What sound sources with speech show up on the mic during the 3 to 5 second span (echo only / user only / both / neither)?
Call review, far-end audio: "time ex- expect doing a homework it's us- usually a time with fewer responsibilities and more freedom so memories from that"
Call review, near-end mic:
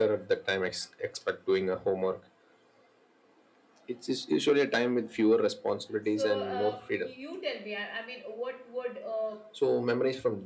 echo only